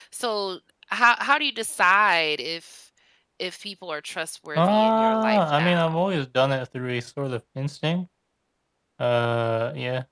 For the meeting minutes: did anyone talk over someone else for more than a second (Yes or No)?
Yes